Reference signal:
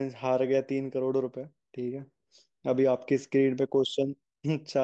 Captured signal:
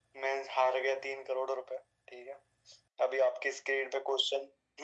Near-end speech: none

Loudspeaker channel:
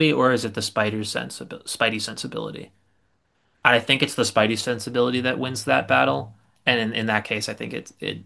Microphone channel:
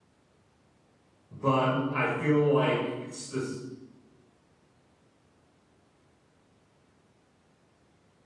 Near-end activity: present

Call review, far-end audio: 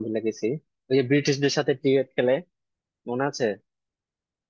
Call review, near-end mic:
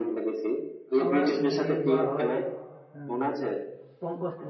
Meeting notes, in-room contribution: present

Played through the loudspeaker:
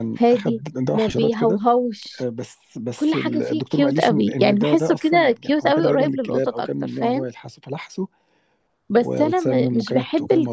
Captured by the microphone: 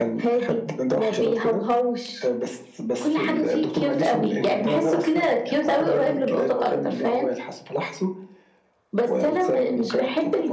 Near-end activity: none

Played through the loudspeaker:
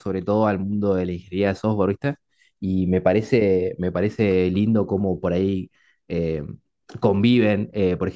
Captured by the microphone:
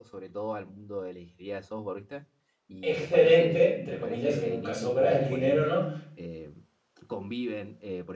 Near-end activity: present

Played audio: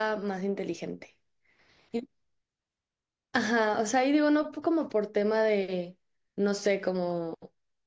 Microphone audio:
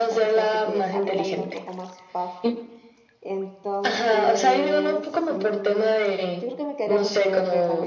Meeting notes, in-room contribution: present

